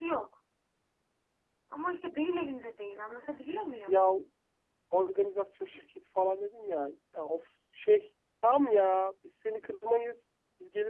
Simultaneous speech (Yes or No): No